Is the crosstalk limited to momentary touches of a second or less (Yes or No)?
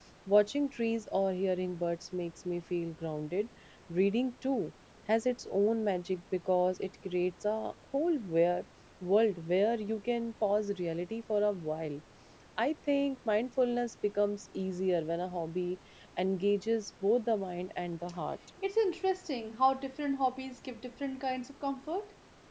Yes